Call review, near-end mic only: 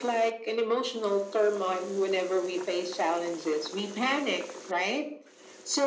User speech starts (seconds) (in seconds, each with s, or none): none